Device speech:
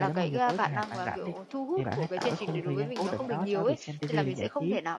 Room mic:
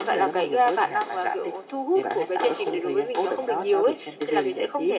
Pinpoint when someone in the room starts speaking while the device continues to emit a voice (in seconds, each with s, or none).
none